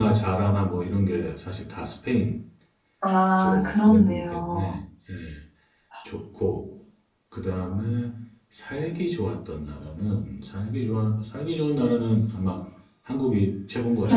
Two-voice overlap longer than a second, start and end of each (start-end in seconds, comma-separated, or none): 3.4-4.7